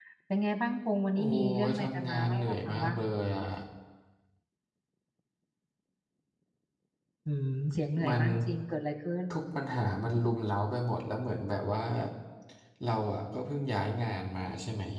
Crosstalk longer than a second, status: present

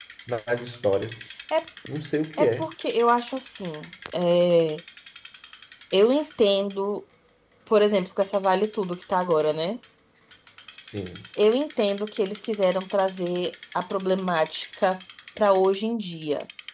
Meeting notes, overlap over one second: none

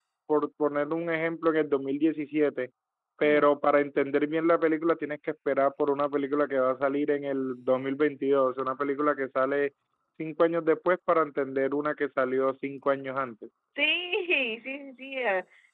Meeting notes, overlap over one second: none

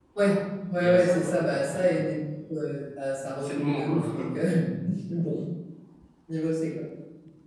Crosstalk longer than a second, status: present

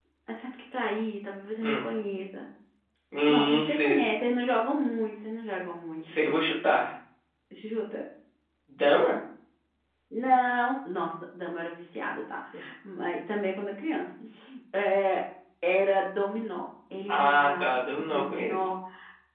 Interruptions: present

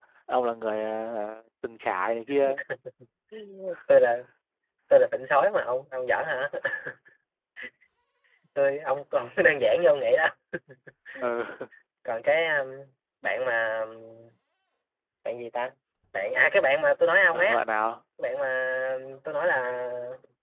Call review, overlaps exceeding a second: none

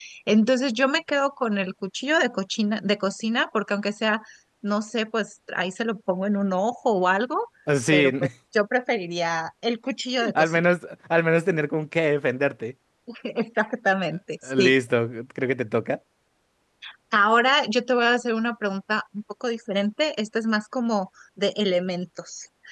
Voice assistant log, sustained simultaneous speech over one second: none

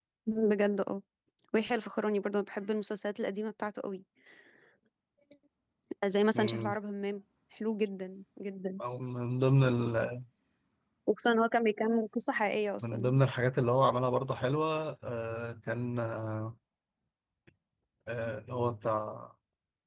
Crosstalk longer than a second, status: none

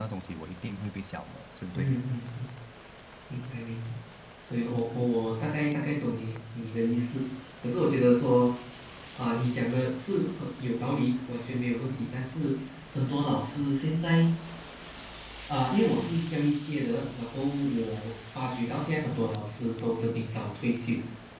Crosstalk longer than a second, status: none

